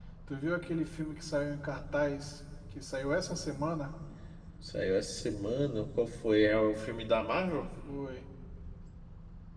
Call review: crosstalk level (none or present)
none